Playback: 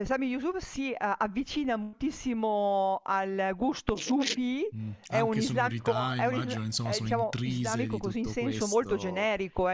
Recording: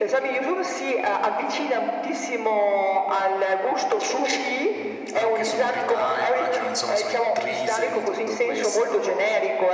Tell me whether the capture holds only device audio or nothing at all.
Yes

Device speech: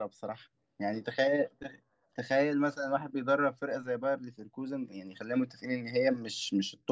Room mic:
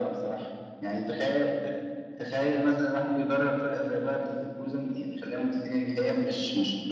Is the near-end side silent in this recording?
Yes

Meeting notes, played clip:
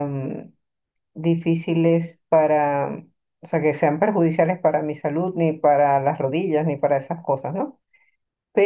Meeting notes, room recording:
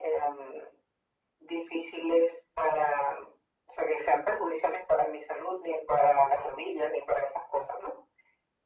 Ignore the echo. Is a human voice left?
No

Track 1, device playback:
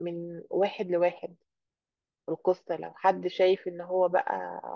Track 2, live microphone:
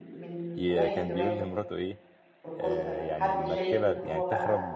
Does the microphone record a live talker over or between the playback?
Yes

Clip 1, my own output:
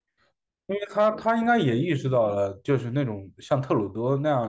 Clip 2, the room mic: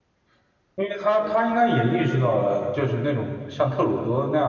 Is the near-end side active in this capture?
No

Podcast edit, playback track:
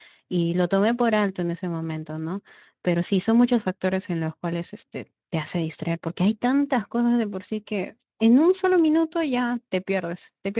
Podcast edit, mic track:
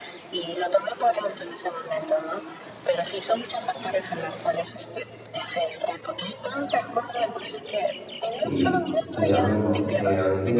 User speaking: Yes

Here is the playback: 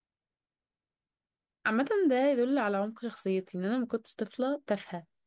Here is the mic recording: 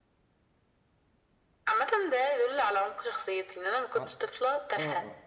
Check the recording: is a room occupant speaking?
Yes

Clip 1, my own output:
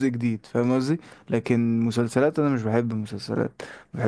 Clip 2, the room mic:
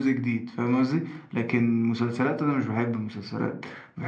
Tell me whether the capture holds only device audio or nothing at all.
Yes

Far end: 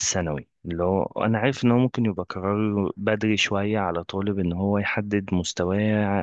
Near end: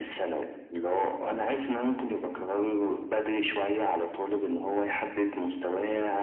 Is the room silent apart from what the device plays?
Yes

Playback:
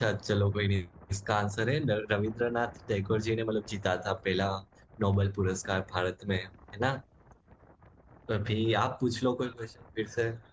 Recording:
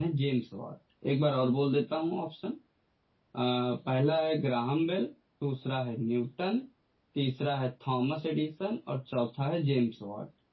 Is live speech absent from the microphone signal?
No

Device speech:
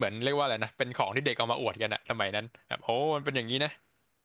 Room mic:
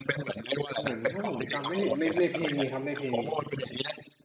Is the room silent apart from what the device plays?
No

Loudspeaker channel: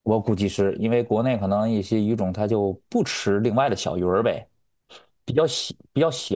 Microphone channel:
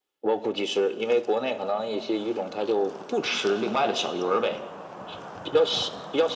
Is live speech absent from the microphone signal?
Yes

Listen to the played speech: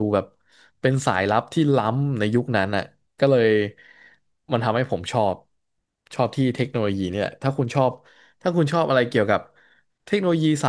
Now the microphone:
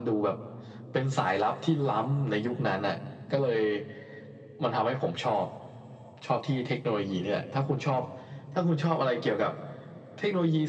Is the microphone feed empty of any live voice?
Yes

